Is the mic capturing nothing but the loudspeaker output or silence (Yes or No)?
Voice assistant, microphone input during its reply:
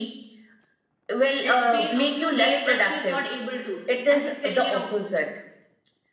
No